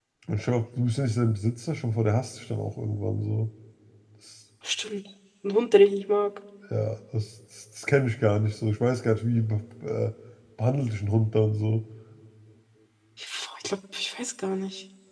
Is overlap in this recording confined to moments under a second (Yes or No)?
Yes